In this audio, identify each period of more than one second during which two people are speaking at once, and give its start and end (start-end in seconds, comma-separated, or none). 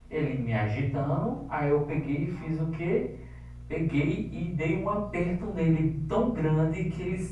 none